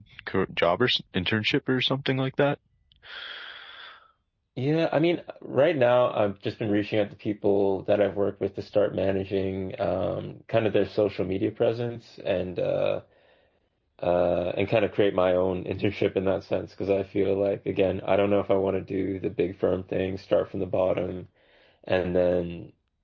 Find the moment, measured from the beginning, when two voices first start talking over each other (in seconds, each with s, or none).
none